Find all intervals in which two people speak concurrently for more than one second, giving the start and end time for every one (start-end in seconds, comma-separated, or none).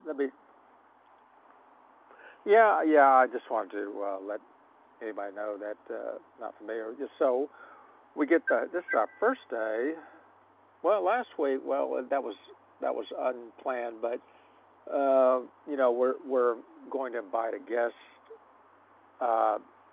none